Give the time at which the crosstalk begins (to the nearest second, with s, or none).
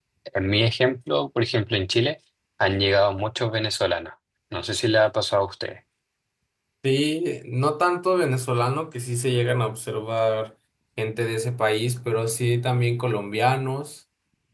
none